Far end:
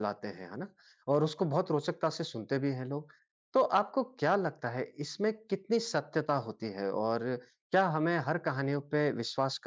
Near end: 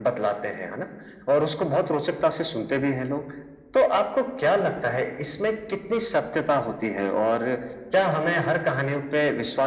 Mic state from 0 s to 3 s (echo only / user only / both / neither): echo only